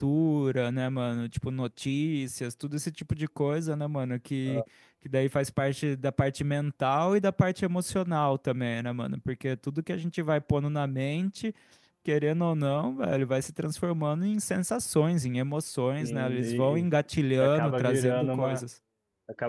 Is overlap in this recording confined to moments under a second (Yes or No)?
No